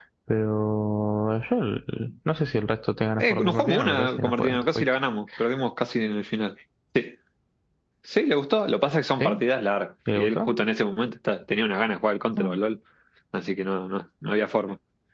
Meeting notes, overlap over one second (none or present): present